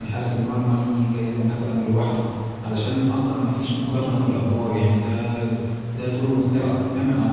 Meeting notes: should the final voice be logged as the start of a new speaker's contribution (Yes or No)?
No